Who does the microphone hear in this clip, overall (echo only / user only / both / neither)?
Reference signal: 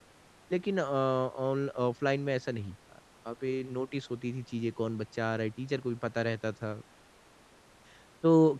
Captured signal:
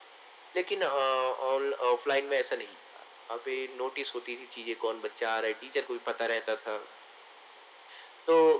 echo only